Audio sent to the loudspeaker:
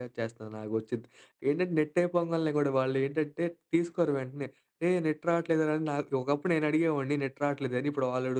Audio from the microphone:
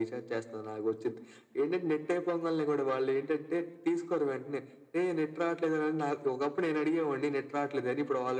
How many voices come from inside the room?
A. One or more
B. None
B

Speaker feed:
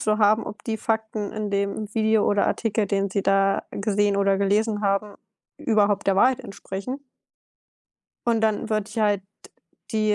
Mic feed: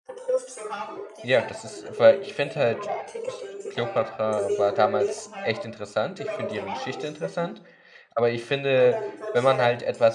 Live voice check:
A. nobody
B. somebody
B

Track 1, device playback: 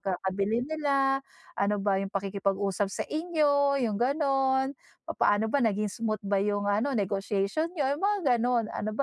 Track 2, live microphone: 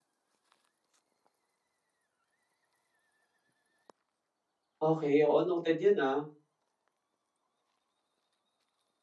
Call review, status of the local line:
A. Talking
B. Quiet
A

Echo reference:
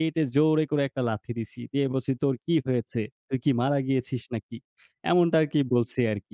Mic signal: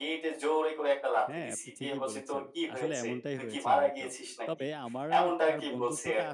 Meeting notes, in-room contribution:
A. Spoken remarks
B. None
A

